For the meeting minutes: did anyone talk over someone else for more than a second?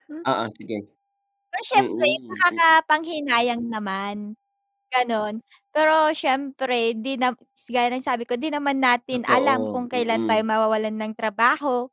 Yes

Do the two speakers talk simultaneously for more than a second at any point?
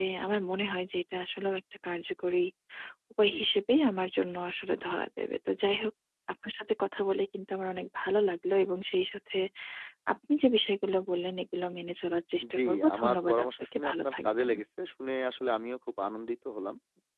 Yes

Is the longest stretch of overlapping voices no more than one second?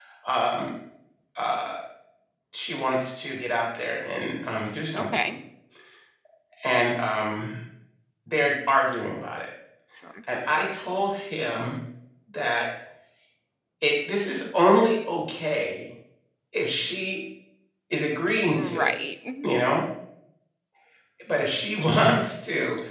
Yes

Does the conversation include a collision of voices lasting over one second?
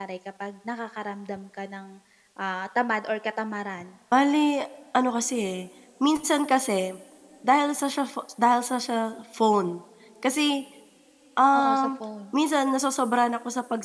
No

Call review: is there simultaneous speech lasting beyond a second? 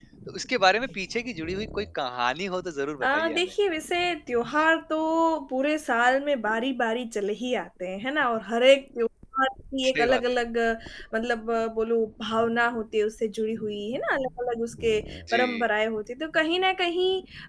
No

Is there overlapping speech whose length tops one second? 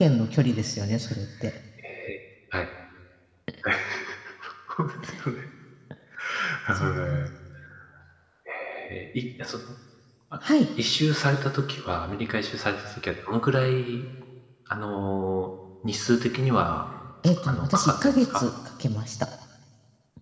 Yes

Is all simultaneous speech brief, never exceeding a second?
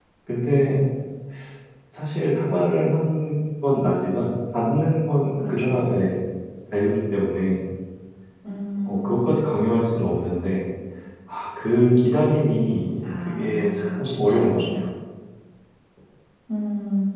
No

